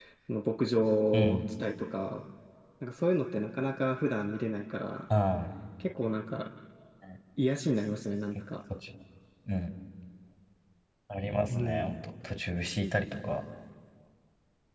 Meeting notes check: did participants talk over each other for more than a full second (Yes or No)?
No